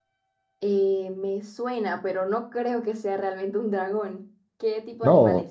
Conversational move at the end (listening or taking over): taking over